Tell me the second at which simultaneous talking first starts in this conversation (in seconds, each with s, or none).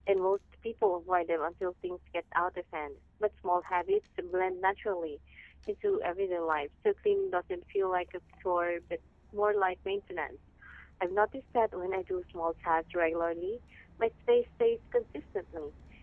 none